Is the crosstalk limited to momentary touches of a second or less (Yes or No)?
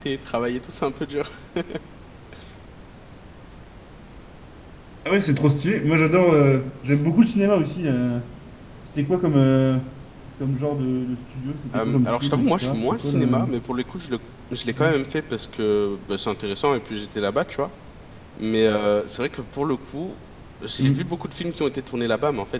No